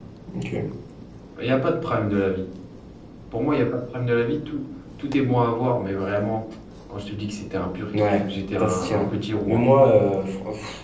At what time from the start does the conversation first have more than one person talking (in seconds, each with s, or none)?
7.9 s